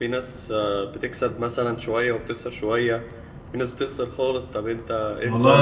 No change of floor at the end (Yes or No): No